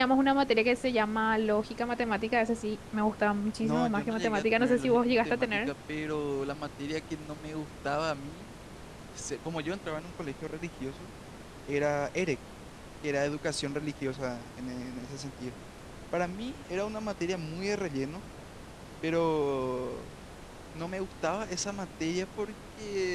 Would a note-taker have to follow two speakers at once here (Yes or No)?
Yes